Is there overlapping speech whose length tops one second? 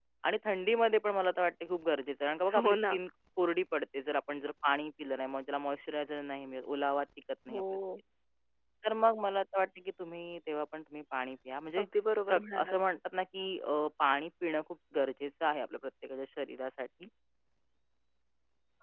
No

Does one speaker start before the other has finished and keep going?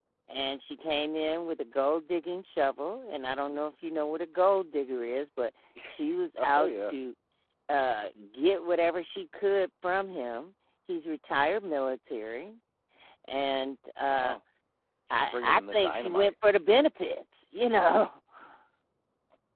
Yes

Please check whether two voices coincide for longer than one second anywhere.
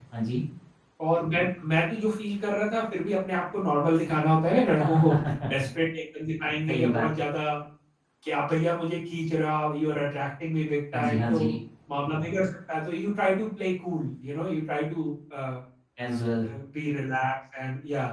No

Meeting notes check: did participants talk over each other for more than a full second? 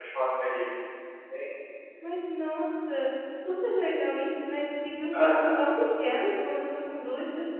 No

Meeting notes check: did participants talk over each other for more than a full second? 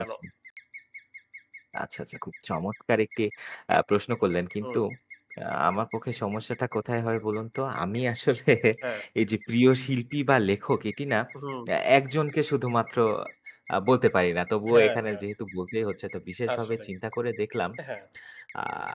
No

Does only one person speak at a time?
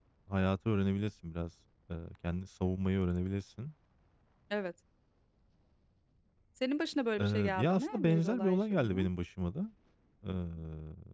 No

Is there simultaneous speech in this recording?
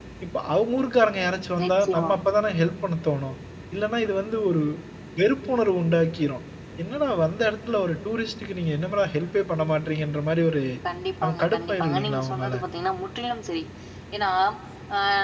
Yes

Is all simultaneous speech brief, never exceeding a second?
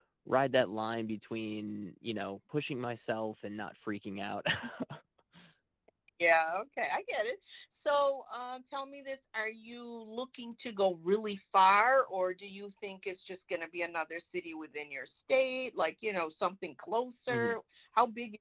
Yes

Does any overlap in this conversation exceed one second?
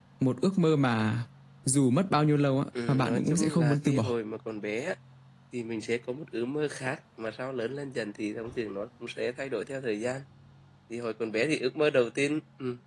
Yes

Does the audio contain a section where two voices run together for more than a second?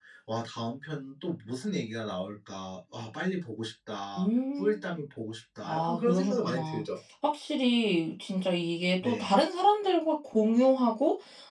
Yes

